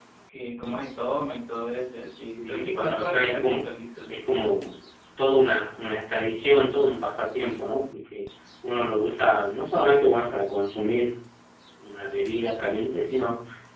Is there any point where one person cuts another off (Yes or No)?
Yes